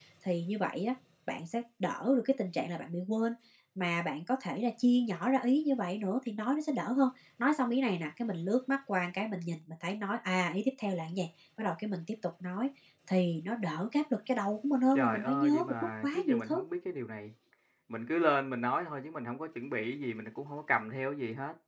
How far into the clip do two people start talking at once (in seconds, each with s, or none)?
15.0 s